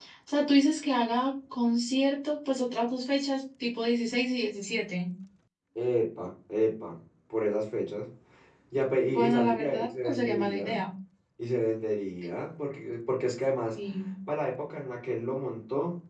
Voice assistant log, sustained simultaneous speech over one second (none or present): present